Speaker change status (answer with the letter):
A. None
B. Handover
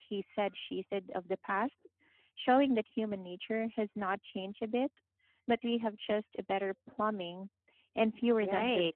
B